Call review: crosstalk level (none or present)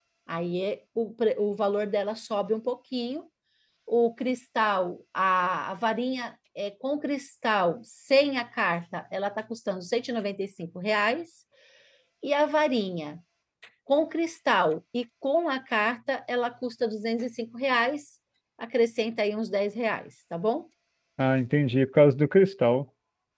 none